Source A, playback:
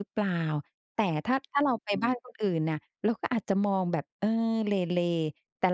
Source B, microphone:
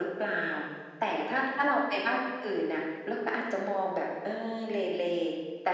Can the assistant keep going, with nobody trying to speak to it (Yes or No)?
Yes